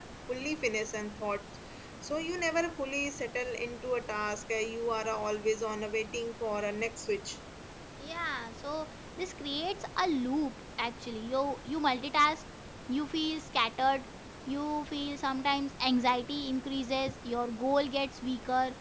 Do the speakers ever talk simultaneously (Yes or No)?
No